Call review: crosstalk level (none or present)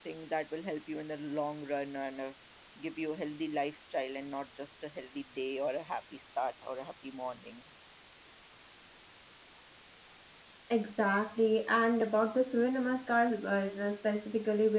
none